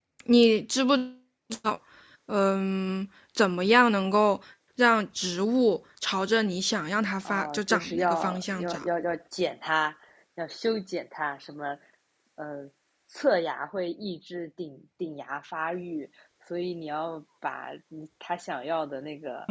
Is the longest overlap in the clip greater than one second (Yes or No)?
Yes